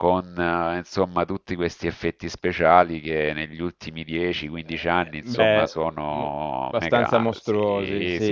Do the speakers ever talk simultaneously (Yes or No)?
Yes